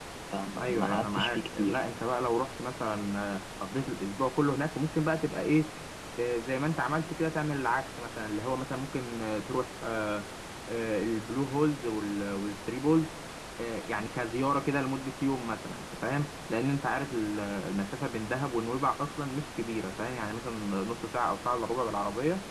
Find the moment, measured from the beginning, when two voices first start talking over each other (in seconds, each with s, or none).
0.6 s